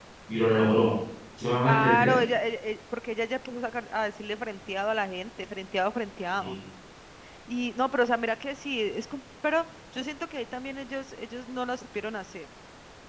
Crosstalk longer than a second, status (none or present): none